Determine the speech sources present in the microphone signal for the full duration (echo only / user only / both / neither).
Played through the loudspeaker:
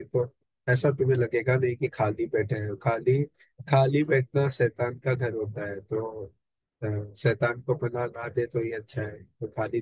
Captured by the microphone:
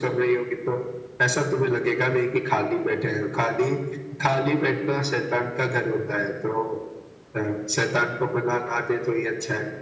echo only